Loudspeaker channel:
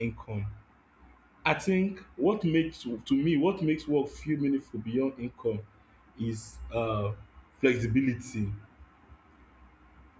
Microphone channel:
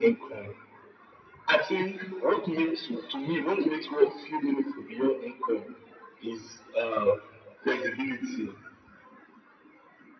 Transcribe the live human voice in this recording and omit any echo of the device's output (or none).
none